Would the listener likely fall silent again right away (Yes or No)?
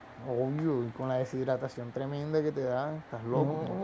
No